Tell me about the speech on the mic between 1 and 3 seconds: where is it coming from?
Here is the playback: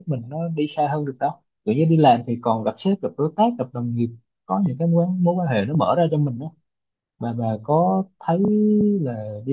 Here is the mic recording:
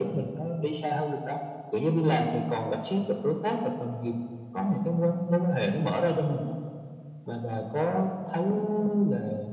echo only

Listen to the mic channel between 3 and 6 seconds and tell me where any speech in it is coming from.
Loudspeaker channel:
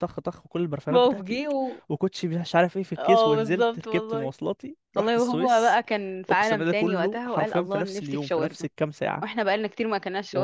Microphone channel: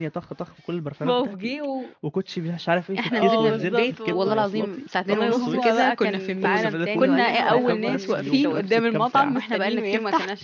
both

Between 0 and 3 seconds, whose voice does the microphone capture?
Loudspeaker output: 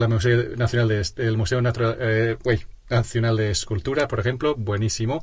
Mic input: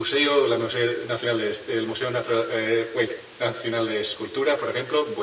echo only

